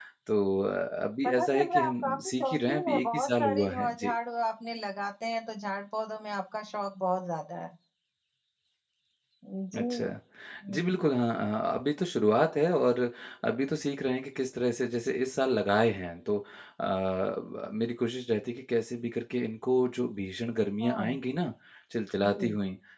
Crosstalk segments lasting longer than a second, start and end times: 1.2-4.1

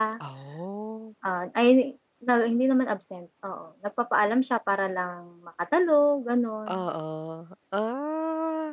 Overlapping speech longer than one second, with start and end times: none

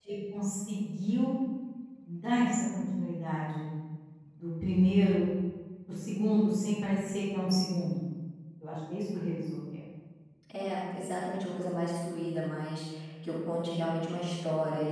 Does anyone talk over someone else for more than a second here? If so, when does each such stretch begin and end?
none

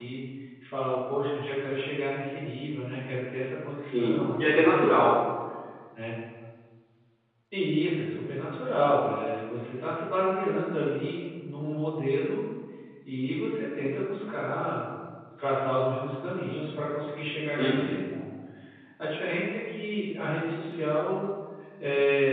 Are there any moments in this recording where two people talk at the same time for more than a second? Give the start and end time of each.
3.9-5.2

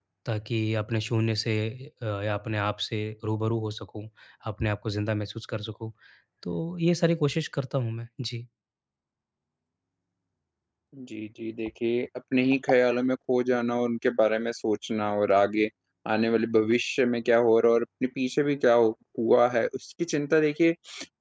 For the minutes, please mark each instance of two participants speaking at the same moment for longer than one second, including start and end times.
none

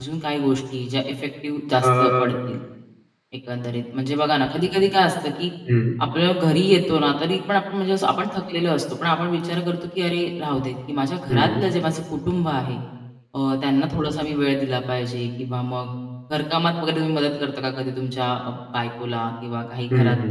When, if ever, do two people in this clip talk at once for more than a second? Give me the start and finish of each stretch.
none

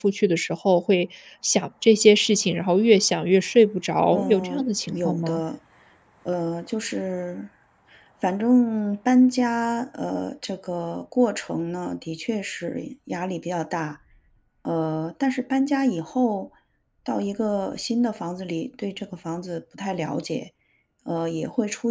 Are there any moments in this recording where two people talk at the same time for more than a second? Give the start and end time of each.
4.1-5.4

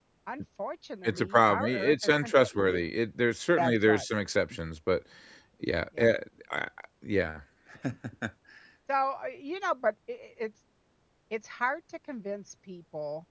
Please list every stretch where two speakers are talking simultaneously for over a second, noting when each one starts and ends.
1.0-2.8

